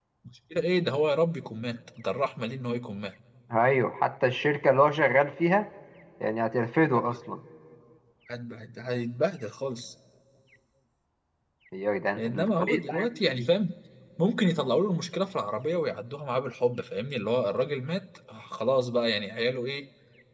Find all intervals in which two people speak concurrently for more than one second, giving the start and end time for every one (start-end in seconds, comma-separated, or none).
12.2-13.4